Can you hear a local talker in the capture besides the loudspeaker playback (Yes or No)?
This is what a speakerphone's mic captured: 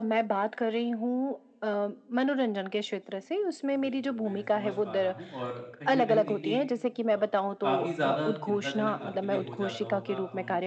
Yes